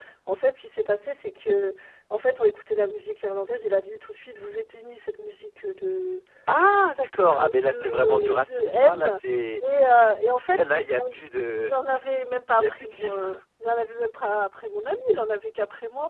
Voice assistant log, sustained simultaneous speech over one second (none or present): present